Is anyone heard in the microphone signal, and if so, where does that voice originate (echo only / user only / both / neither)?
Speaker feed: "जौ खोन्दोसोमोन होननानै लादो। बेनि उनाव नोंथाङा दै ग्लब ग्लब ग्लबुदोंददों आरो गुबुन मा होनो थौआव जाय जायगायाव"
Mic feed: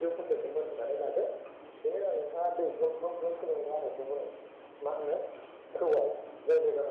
echo only